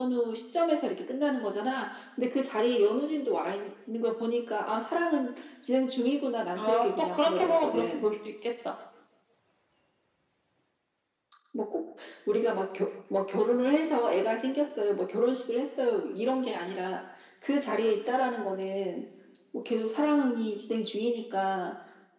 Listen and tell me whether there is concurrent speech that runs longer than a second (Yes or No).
Yes